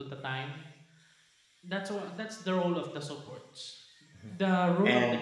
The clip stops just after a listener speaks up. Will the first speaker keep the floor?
Yes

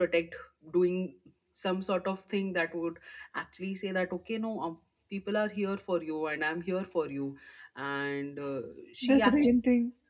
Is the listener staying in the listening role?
No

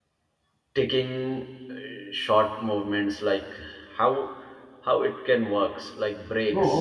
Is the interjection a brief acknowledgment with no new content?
No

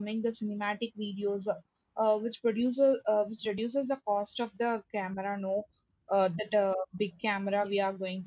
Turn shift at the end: No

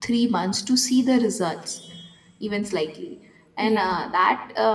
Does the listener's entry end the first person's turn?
No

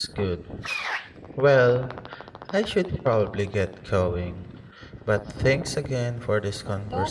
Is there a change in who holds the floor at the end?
Yes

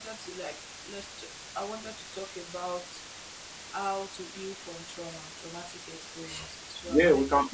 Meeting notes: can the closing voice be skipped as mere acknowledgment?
No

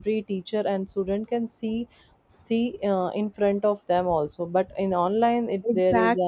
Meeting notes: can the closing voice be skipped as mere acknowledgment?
No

